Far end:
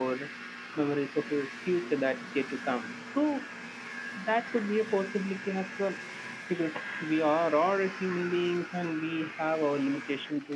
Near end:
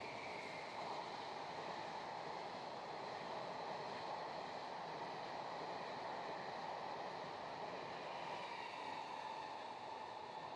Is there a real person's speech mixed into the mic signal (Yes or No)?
No